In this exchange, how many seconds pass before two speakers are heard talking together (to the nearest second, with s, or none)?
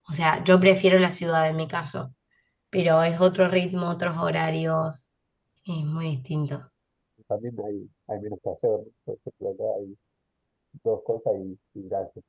none